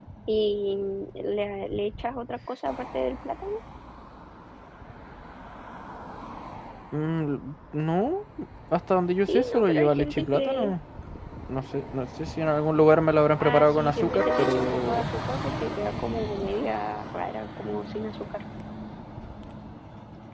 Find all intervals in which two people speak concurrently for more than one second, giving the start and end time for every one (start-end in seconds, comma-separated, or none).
9.3-10.7, 13.4-15.1